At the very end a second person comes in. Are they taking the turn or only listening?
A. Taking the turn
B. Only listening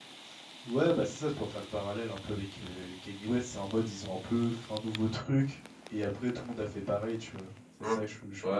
A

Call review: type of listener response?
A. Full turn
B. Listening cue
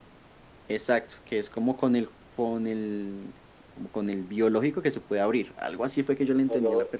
A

